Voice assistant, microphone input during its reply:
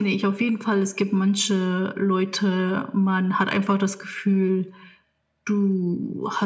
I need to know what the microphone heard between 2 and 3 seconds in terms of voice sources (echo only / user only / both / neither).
echo only